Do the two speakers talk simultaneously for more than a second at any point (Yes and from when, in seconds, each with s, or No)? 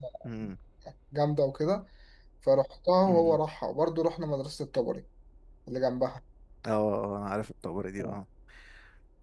No